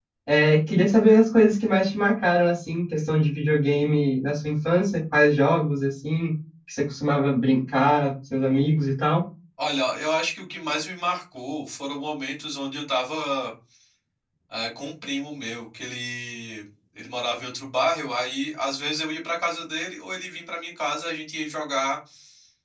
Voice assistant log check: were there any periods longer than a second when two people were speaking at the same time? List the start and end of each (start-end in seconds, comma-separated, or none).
none